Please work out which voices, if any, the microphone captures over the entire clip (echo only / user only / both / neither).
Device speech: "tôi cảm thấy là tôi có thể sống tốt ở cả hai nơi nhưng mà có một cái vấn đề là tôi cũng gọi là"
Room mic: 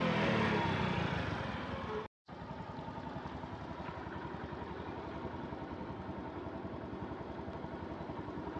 neither